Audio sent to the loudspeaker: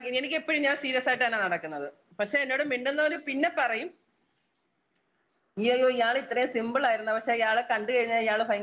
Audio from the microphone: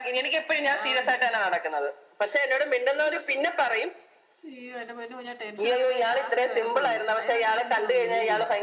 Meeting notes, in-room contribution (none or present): present